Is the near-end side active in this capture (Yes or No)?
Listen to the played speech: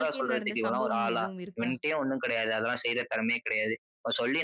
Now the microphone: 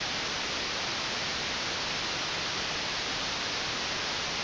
No